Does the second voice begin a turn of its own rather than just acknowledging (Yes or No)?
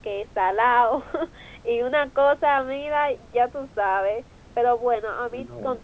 No